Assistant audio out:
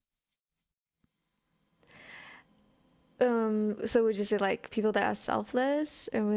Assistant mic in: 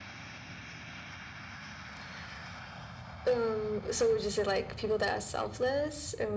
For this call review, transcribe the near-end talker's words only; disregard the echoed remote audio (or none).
none